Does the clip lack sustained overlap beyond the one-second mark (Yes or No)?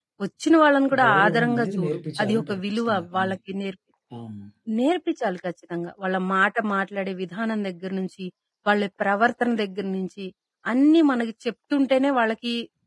No